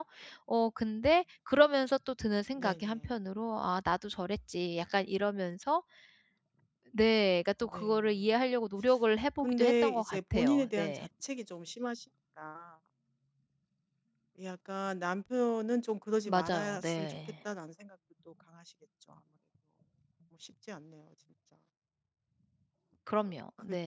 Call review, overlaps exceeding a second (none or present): present